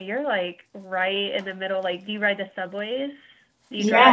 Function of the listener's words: taking over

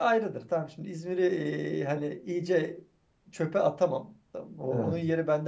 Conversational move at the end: listening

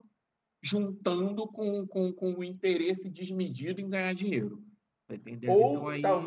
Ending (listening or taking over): taking over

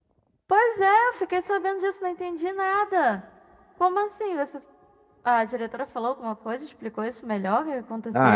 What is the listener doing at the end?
taking over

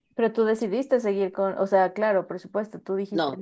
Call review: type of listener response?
taking over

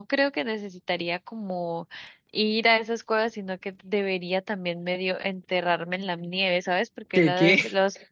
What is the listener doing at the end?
listening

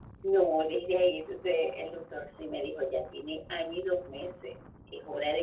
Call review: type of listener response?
listening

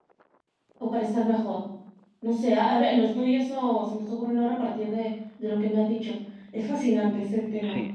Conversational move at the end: taking over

